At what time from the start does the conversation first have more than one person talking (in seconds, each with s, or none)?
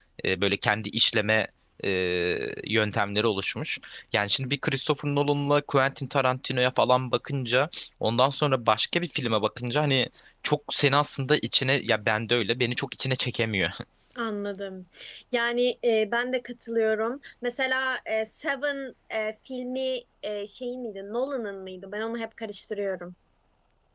none